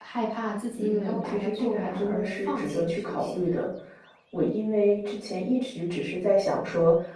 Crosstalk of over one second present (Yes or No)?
Yes